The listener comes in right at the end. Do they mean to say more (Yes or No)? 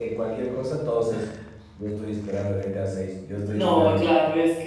Yes